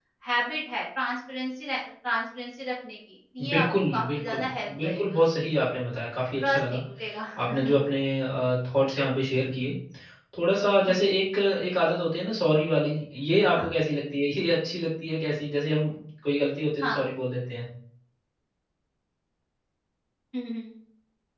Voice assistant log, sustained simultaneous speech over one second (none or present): present